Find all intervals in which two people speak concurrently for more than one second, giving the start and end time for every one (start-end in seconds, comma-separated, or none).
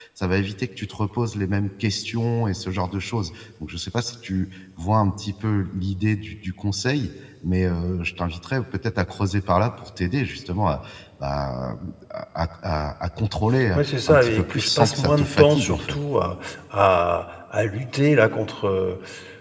13.8-16.0